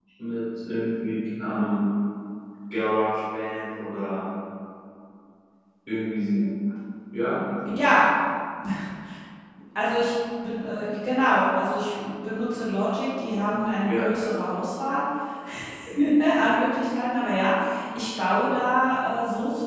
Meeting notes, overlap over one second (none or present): none